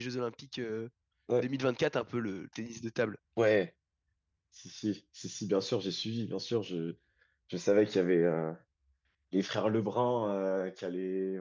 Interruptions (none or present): none